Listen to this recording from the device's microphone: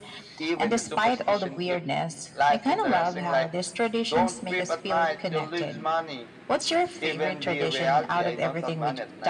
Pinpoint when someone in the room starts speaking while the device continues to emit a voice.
none

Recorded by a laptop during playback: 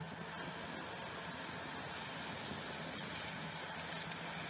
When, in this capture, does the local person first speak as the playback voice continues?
none

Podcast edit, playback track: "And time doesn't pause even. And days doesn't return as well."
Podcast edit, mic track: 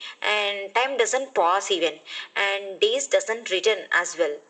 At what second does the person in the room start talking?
none

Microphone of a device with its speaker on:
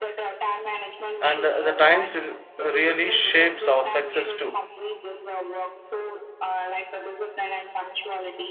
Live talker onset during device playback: 1 s

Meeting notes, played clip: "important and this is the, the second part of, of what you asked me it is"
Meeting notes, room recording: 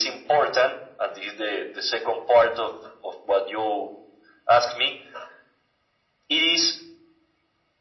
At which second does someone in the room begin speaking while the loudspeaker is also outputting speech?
none

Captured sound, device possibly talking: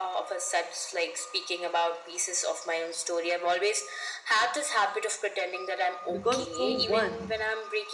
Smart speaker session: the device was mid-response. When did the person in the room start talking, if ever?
6 s

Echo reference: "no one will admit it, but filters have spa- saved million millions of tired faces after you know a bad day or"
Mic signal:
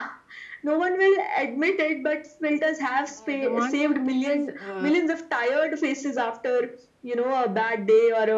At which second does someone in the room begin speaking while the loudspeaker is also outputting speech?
3 s

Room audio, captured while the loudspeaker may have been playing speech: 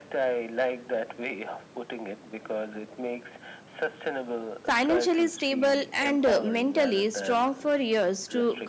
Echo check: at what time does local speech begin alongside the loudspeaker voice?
5 s

